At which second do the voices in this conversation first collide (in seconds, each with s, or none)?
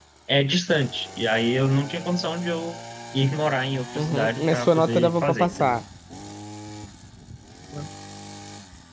4.0 s